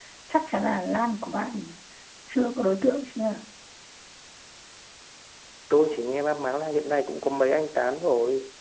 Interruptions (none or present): none